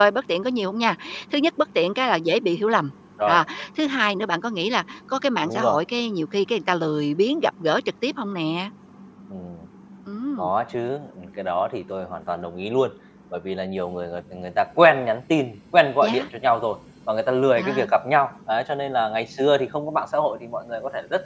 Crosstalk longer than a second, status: none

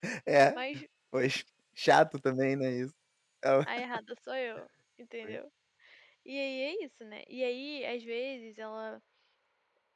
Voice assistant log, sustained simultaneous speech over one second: none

